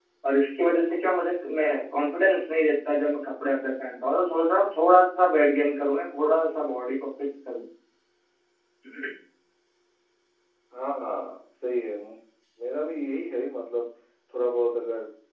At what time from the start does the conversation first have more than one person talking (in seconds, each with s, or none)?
none